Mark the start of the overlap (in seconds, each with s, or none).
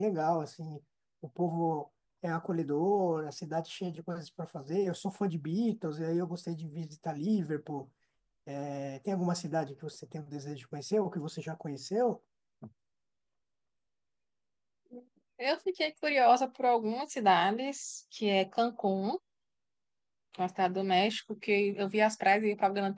none